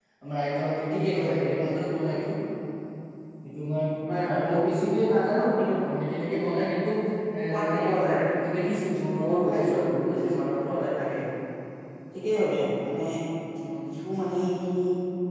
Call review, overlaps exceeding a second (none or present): present